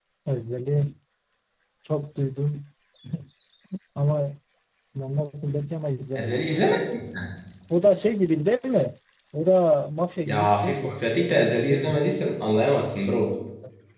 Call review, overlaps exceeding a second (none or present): present